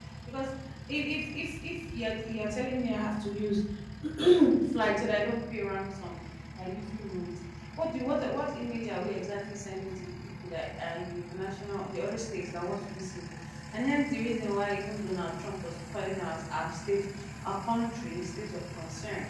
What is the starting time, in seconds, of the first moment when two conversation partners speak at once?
none

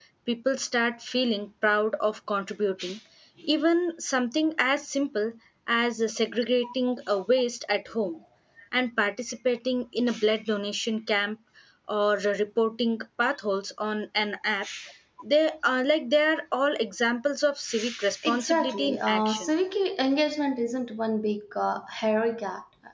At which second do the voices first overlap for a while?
18 s

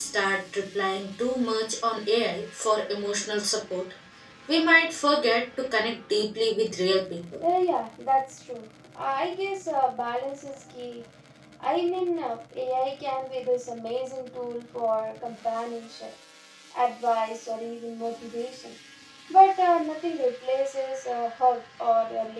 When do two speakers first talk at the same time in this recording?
none

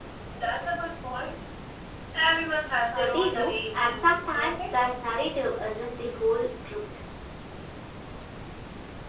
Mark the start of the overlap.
3 s

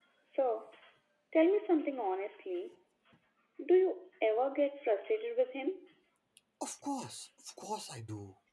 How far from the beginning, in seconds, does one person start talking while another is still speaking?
none

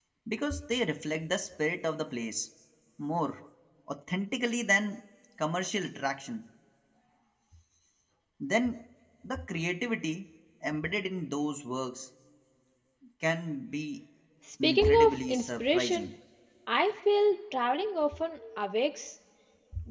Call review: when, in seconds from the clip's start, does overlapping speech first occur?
15 s

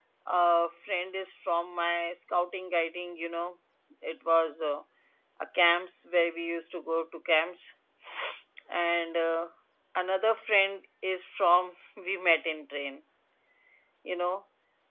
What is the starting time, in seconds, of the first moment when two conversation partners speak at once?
none

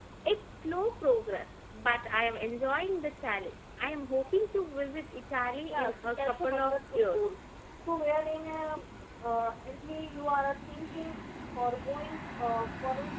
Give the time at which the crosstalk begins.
6 s

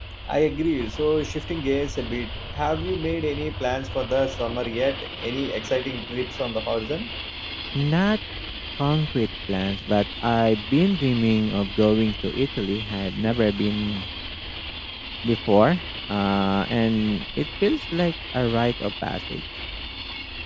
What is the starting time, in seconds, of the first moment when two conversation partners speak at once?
none

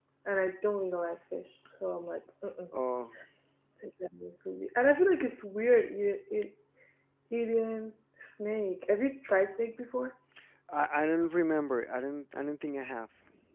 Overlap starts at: none

